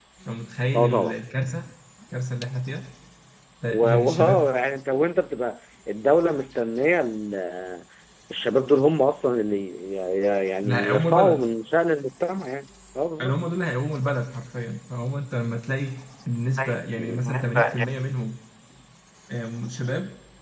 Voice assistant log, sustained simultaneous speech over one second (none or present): present